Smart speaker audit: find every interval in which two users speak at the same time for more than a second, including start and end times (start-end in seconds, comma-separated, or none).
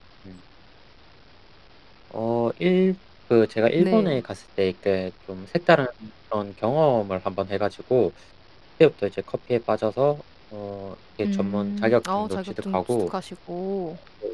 11.2-13.1